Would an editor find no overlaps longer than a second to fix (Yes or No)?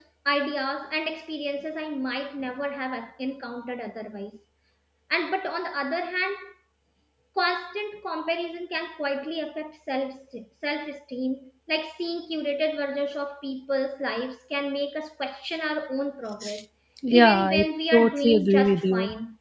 No